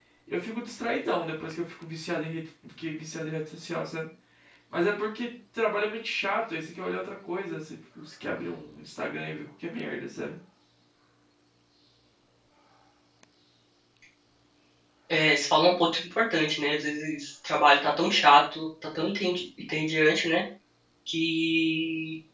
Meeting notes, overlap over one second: none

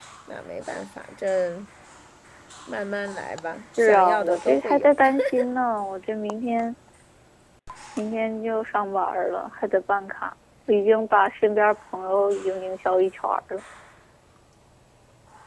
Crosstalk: present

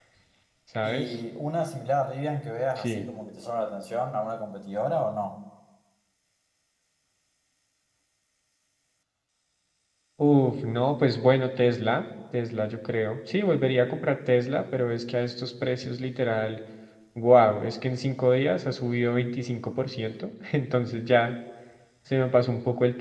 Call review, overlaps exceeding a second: none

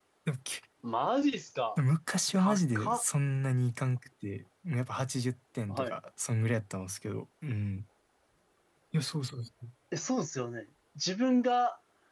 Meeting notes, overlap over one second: none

